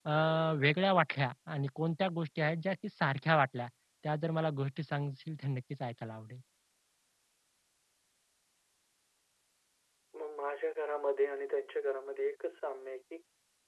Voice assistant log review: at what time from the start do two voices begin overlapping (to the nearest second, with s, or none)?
none